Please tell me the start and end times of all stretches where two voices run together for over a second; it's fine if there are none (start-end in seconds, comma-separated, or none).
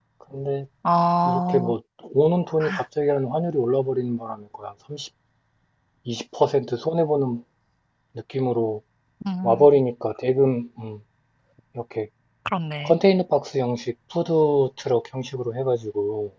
none